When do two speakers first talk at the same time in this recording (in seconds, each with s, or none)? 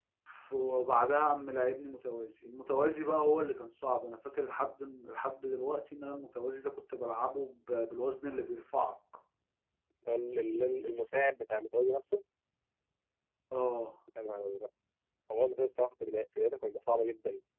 none